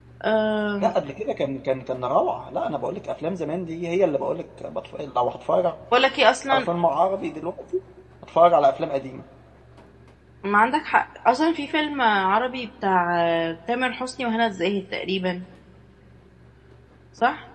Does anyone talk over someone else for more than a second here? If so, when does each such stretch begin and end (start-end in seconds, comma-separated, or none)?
none